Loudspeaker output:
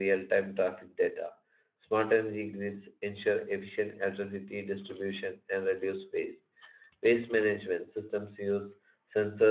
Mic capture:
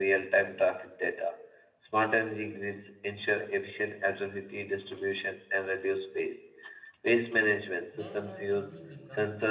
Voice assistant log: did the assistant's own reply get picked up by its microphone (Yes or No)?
Yes